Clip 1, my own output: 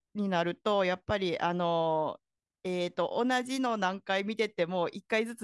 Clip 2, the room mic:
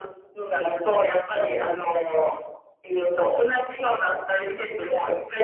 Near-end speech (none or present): none